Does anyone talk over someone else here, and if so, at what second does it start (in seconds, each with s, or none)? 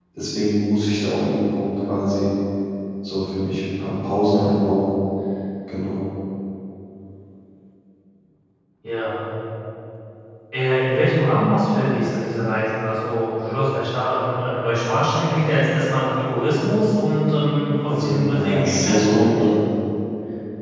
17.9 s